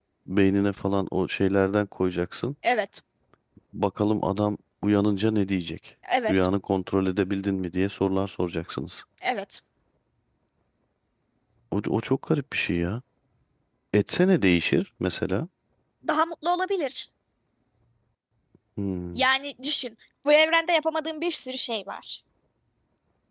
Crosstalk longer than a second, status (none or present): none